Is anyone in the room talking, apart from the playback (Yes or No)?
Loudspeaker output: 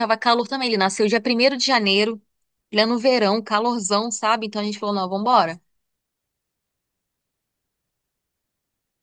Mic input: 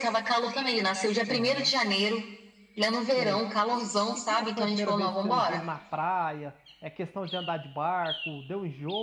Yes